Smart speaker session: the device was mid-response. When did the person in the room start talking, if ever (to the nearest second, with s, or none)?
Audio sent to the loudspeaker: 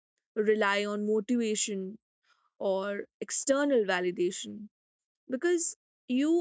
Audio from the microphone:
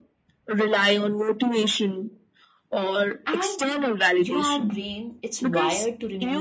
3 s